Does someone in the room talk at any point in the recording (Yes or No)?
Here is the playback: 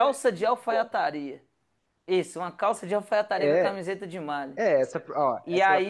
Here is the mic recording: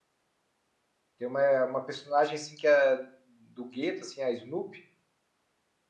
Yes